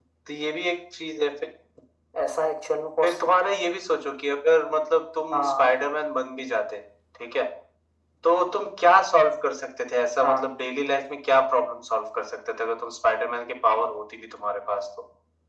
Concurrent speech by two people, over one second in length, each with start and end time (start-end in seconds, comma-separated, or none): none